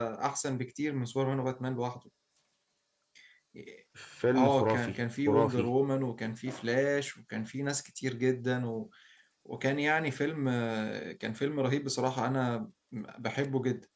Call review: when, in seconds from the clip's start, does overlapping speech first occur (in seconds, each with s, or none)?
4.3 s